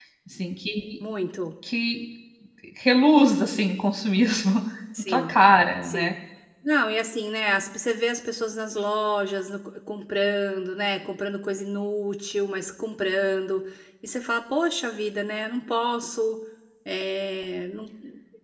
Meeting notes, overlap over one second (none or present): none